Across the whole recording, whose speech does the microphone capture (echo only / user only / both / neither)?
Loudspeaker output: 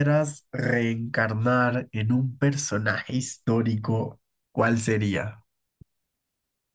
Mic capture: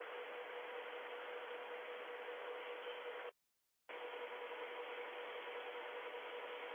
neither